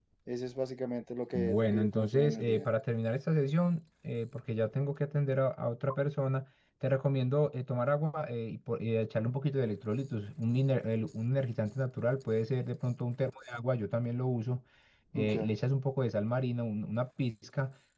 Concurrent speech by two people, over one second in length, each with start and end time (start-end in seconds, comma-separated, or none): 1.4-2.6